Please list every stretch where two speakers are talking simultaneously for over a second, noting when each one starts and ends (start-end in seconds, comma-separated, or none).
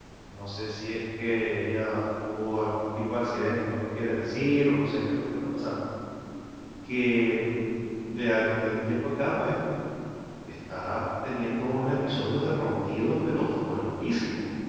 12.6-13.8